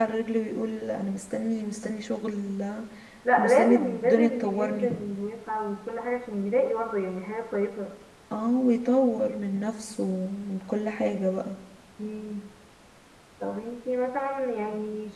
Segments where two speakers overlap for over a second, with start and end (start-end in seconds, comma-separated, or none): 3.4-4.9